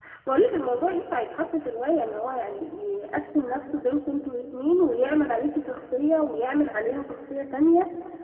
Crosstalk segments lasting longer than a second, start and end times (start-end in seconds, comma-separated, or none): none